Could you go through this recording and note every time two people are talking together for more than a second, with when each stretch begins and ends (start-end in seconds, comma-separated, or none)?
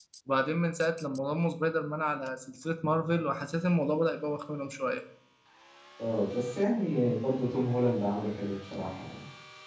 none